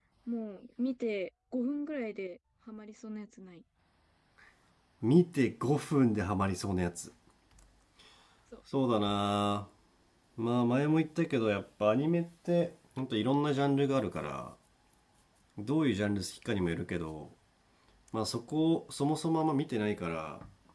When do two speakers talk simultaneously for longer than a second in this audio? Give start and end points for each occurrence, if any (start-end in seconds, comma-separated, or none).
none